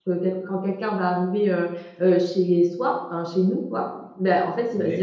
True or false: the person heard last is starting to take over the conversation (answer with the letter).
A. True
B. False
B